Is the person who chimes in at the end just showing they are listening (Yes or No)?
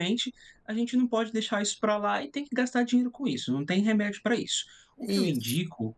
Yes